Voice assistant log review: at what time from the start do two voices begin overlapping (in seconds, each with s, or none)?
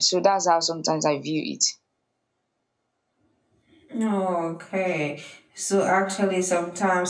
none